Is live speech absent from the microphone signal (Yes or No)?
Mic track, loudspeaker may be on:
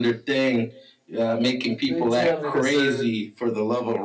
No